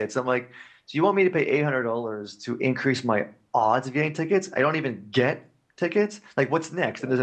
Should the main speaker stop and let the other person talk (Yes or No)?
No